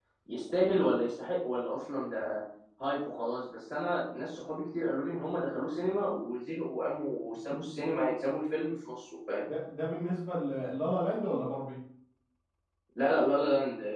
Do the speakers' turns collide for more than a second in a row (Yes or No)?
No